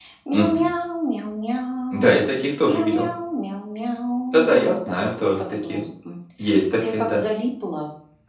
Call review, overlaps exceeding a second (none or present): present